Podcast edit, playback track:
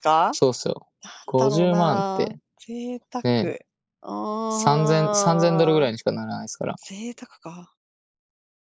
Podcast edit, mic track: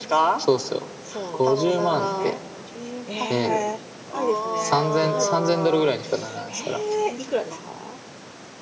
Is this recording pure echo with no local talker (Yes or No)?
No